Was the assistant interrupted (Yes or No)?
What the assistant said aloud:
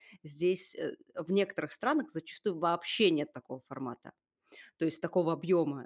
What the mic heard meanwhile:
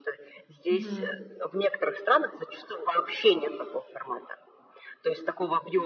Yes